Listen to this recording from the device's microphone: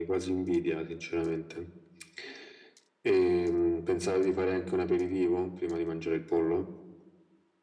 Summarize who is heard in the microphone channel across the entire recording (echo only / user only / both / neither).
echo only